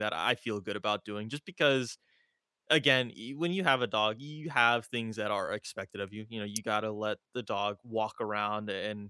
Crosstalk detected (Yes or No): No